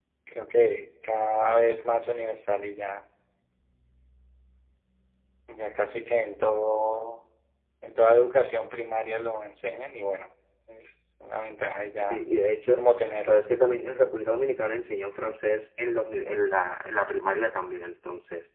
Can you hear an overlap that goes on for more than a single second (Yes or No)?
No